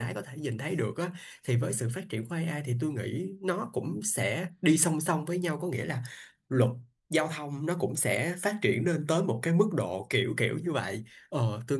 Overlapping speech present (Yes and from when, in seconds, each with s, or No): No